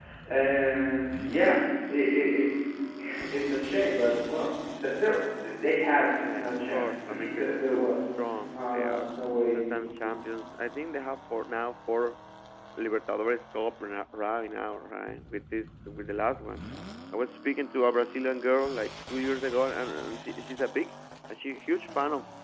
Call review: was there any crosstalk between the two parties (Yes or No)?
Yes